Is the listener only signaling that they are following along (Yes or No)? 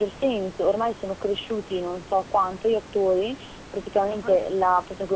Yes